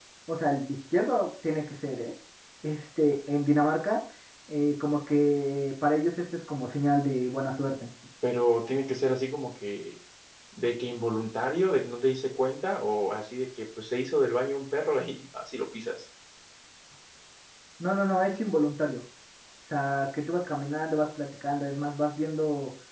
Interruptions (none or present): none